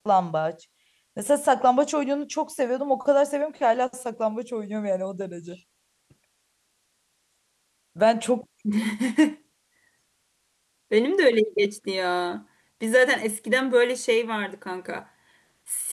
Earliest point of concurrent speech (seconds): none

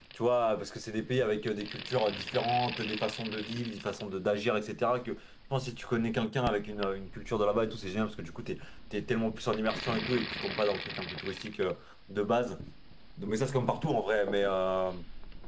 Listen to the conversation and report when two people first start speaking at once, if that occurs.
none

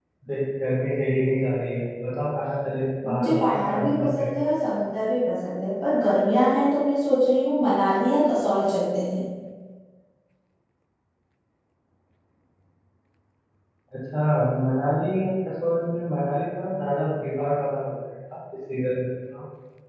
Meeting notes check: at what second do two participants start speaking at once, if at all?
3.0 s

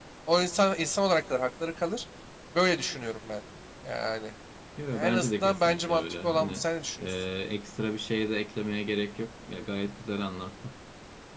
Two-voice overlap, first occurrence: 4.9 s

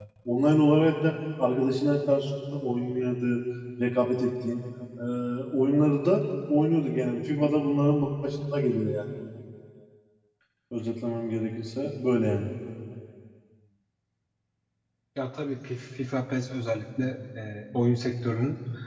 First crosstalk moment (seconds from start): none

